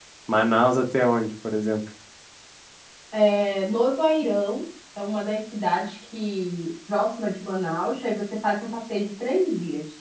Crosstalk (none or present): none